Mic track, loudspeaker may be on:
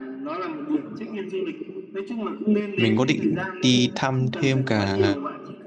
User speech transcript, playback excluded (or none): mình có định đi thăm thêm cả